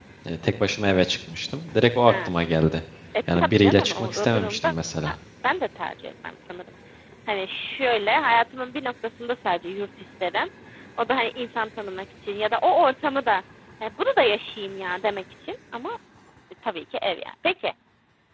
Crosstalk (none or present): present